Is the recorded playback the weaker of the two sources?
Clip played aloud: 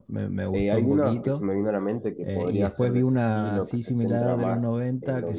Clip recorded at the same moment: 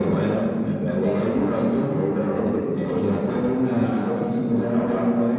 No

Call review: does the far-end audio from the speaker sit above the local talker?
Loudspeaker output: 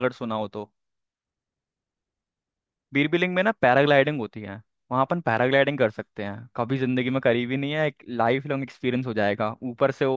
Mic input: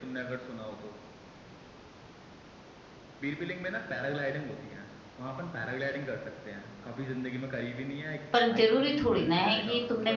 No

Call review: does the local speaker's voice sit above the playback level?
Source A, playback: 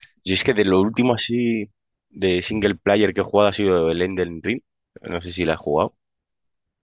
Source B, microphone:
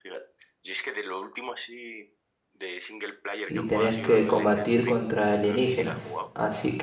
Yes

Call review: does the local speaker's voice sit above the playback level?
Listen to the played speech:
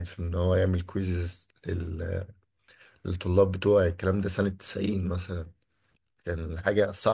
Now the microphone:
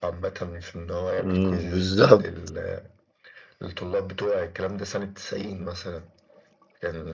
Yes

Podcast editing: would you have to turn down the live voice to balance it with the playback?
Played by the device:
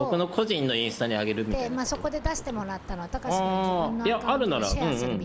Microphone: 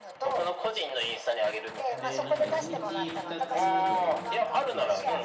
No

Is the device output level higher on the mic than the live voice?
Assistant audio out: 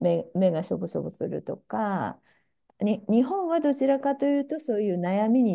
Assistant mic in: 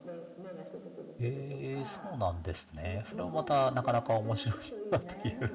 No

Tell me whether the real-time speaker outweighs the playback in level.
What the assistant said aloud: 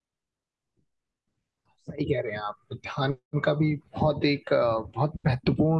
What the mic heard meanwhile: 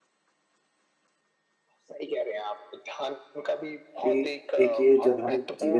Yes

